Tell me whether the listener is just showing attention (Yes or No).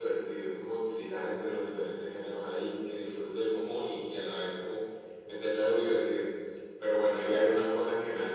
Yes